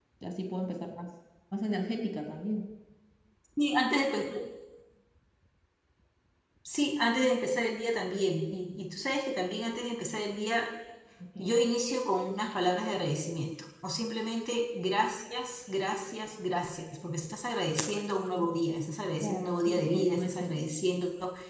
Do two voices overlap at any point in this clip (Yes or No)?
Yes